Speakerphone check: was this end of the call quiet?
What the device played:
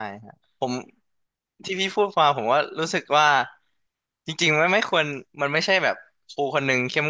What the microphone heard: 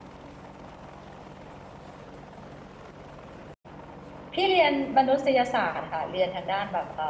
No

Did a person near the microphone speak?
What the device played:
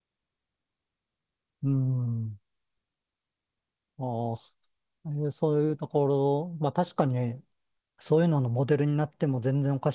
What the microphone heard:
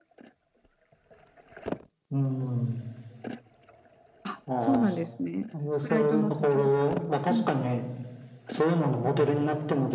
Yes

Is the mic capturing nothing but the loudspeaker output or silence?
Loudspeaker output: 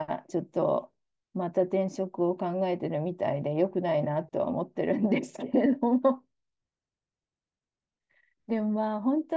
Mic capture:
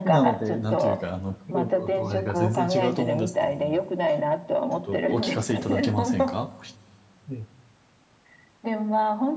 No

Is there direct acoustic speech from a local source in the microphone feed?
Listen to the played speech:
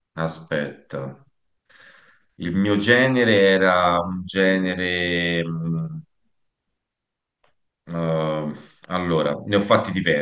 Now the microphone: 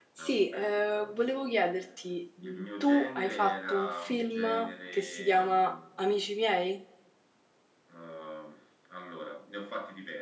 Yes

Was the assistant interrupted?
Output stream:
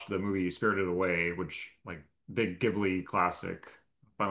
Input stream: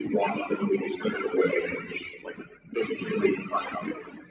No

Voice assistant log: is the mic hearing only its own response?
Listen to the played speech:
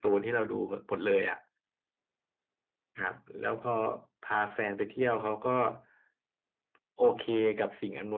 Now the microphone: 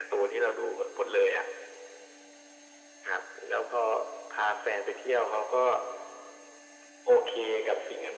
Yes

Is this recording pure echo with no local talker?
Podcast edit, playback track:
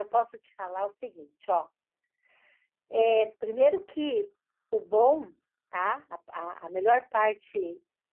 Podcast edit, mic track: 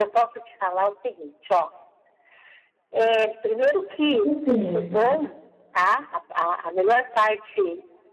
No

